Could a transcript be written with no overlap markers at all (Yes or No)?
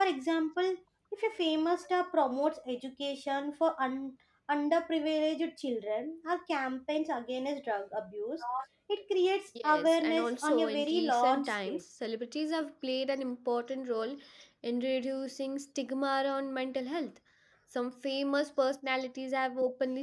No